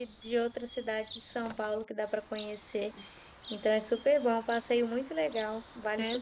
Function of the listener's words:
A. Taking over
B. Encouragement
A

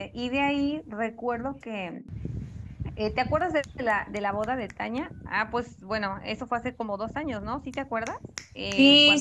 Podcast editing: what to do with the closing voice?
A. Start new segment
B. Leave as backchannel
A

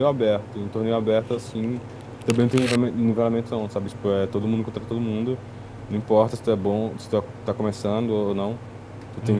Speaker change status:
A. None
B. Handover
A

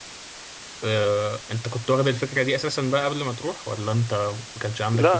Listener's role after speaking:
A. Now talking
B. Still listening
A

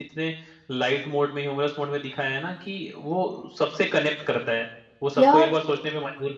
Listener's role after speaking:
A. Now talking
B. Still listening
B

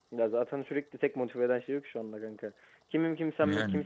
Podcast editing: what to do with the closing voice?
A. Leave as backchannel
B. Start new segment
A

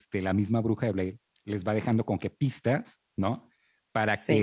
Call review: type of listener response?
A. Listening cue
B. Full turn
A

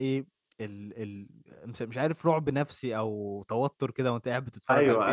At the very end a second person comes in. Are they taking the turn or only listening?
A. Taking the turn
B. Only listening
A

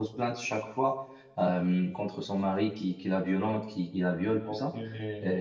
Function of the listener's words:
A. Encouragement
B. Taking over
A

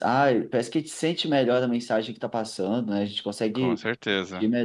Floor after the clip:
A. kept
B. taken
A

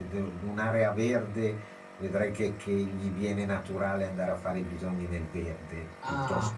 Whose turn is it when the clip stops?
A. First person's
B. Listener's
B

